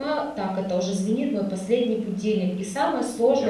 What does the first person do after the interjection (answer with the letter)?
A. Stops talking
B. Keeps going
B